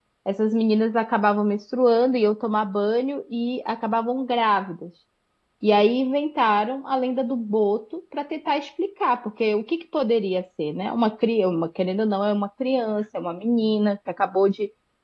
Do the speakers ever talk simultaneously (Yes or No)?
No